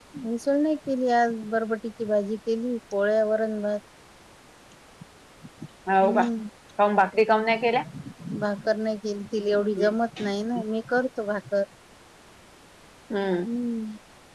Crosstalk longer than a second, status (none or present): none